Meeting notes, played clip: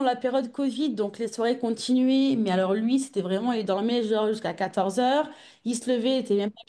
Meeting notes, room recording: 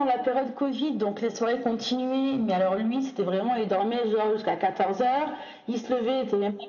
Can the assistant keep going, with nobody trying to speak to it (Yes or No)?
Yes